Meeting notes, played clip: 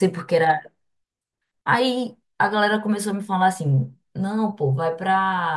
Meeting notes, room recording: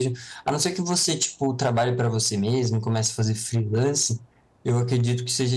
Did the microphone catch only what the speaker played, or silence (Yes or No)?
No